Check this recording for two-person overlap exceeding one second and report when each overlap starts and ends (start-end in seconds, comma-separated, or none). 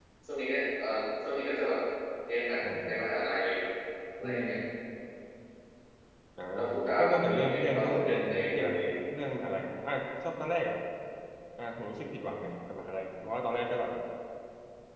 7.0-8.8